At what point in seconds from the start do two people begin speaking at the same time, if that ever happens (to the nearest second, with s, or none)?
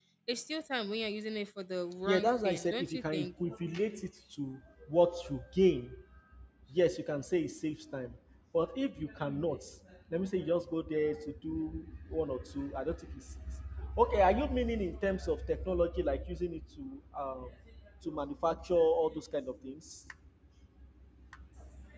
2 s